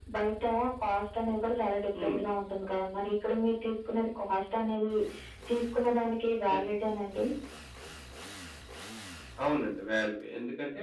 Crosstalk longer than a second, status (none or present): none